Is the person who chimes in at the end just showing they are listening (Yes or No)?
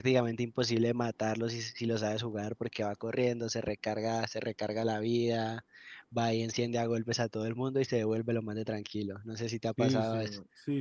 No